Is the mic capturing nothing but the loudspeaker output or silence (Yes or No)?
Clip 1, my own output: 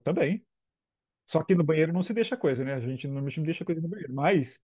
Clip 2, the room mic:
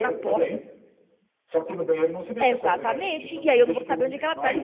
No